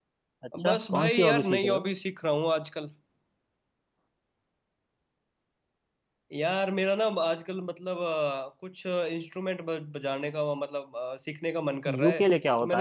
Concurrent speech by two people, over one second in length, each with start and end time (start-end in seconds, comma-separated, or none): 0.6-1.8